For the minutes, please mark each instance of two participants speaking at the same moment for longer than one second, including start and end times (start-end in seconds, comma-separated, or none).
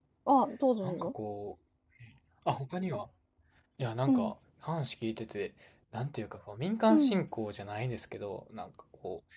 none